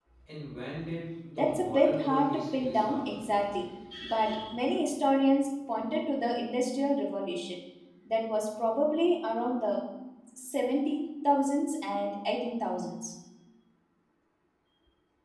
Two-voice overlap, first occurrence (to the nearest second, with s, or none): 1 s